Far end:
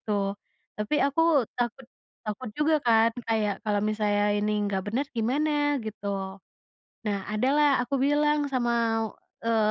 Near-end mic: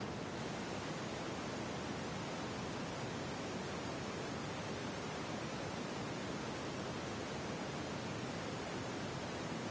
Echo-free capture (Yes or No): Yes